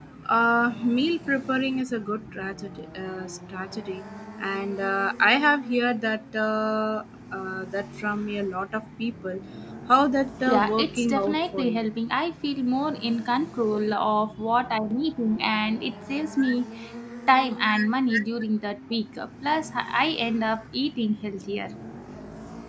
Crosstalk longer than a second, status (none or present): present